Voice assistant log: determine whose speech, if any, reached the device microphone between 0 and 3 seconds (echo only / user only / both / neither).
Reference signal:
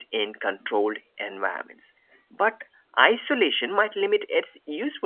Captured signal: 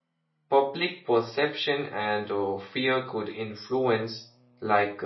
user only